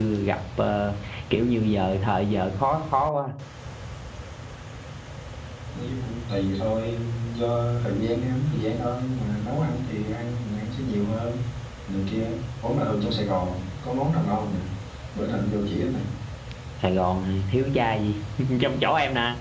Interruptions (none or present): none